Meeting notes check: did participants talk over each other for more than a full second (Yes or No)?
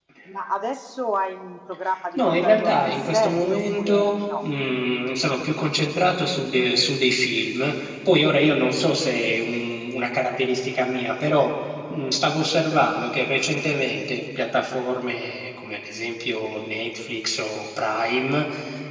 Yes